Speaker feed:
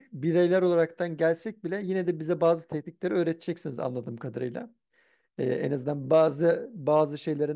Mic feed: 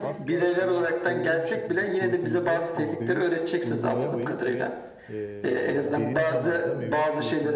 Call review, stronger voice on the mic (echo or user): echo